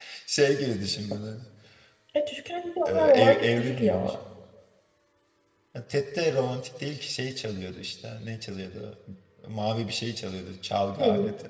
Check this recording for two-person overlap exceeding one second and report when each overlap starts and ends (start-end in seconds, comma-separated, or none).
2.9-4.1